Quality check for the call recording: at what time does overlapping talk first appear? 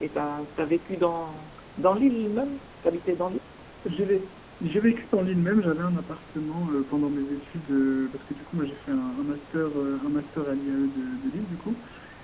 none

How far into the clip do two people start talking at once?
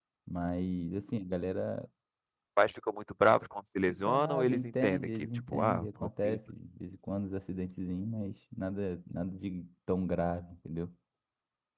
3.9 s

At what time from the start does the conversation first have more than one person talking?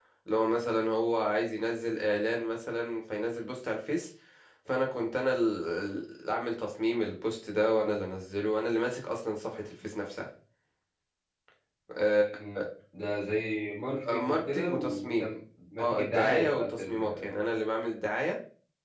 14.1 s

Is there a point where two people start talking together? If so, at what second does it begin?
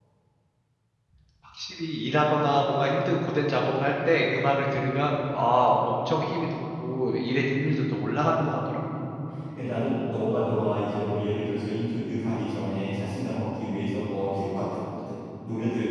none

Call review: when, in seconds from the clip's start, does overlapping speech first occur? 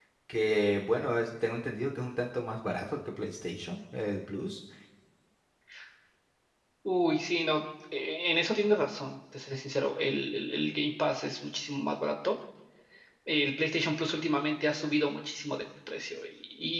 none

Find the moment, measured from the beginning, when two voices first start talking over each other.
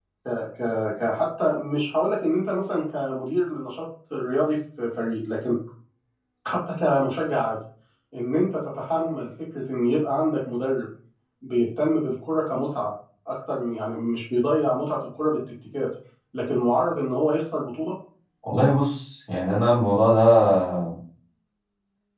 none

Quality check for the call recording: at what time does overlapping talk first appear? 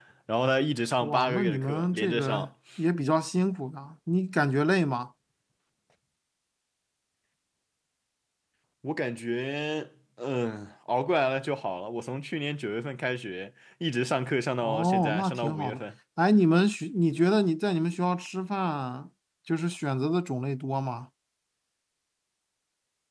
1.0 s

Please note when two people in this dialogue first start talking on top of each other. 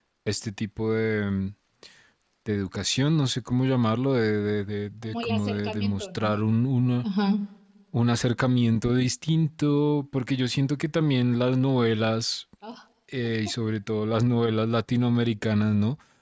5.0 s

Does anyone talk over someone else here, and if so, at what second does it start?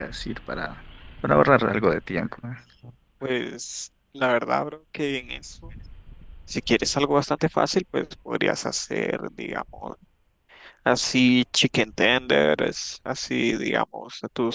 none

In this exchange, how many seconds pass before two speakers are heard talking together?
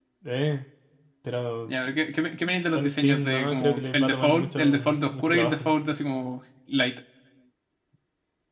2.8 s

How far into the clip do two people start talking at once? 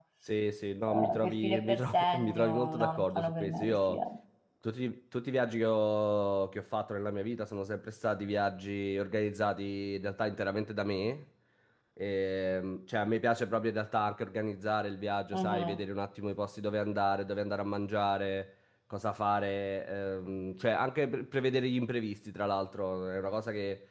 0.9 s

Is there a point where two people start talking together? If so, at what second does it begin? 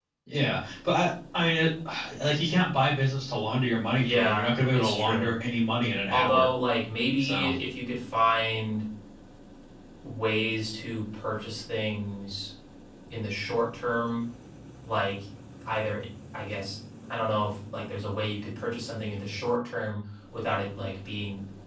4.0 s

